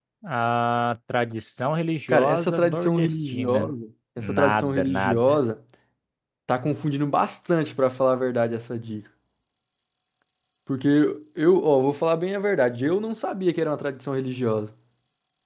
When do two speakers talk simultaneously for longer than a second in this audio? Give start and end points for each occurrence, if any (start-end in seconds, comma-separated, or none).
2.1-3.7, 4.2-5.4